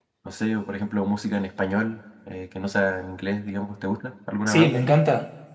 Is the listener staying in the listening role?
No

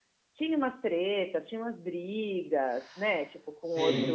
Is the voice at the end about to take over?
Yes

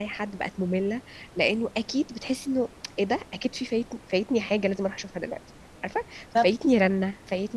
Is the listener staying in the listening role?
Yes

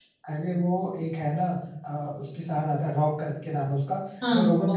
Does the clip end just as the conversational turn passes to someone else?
No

